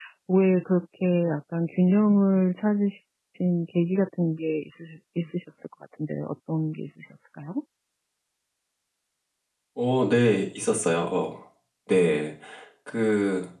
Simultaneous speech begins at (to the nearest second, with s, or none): none